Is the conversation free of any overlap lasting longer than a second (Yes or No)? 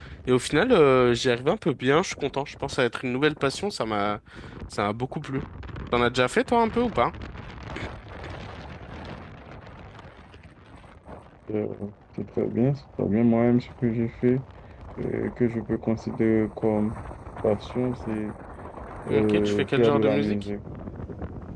No